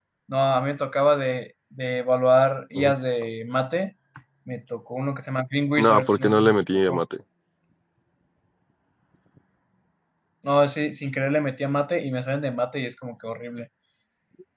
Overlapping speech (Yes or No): Yes